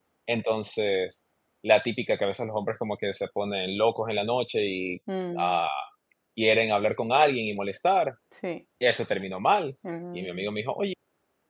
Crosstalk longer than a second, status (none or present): none